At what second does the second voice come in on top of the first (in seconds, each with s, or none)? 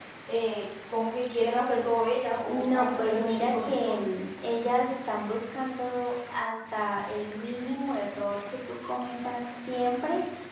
2.5 s